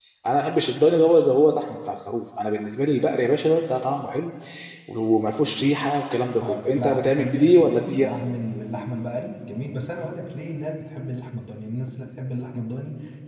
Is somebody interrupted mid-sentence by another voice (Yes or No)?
Yes